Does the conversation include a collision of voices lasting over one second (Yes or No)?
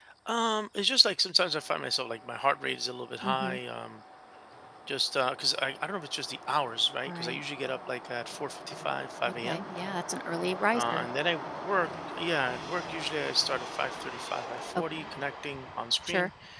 No